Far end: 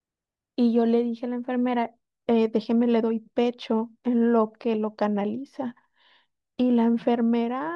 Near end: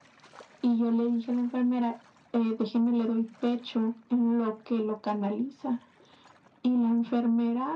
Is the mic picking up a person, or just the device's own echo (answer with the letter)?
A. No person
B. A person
A